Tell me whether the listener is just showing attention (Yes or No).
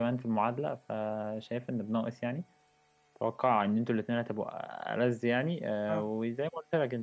Yes